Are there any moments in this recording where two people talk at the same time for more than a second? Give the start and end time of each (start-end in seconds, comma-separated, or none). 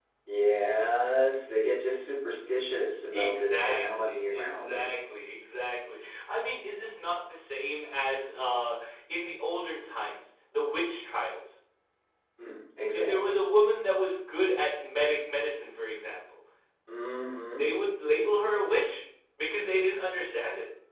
3.1-4.9